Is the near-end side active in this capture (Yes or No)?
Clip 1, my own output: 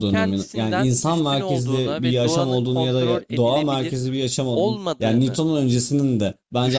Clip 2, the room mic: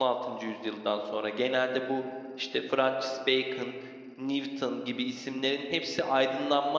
Yes